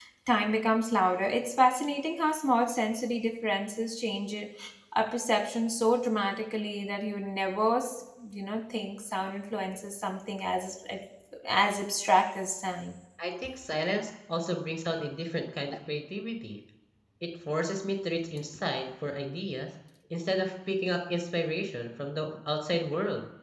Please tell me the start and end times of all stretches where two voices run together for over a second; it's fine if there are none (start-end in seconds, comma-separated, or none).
none